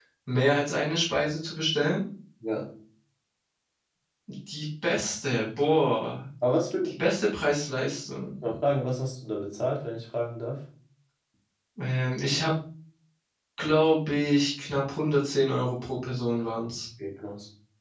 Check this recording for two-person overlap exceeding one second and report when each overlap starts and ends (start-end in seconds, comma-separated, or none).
none